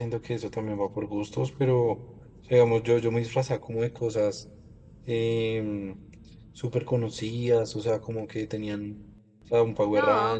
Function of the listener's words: taking over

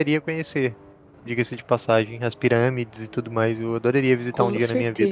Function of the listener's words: taking over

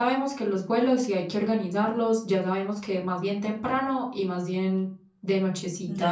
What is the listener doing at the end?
listening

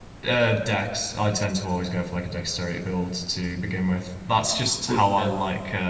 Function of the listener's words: listening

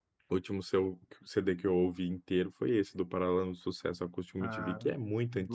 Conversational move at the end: taking over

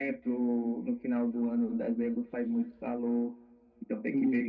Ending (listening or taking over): listening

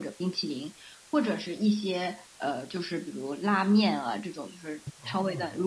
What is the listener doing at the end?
listening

